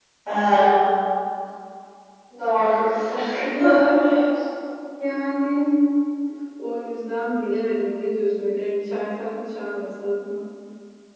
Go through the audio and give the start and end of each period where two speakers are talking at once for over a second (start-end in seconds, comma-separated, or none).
none